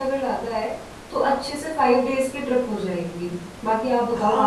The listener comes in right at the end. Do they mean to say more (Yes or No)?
Yes